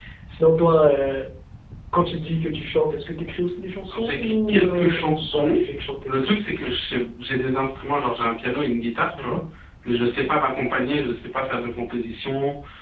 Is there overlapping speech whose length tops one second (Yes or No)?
Yes